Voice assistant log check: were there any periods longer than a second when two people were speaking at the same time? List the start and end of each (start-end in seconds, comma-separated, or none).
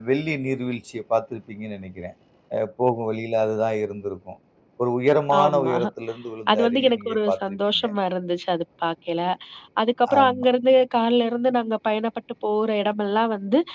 6.5-7.8